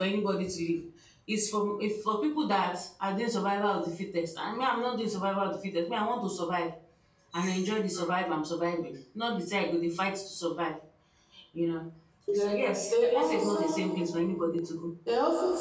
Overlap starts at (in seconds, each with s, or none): 12.3 s